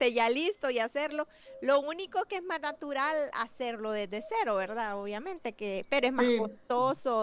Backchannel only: Yes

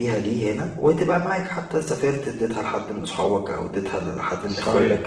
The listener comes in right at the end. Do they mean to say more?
Yes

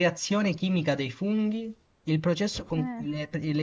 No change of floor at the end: Yes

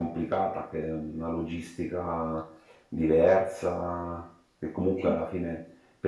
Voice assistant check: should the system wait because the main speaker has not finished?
Yes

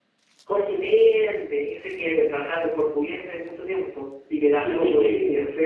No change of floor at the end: No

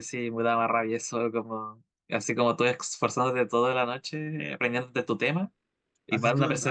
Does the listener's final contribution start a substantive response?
Yes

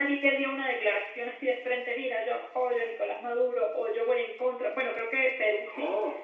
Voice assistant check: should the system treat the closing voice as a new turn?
No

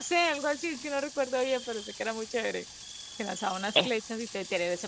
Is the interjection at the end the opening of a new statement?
No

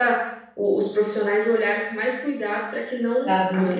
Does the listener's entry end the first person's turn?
No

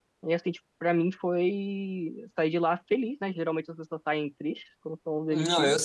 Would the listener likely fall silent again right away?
No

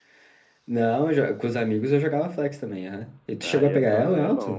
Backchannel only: No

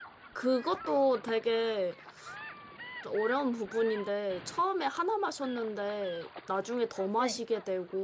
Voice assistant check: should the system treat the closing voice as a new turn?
No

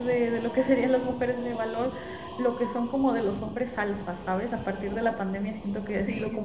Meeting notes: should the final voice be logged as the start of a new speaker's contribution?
No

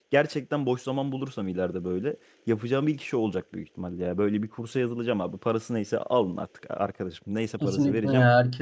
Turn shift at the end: Yes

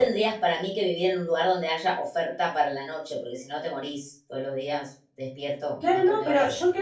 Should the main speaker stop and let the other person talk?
Yes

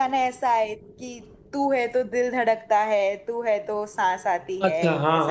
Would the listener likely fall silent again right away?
No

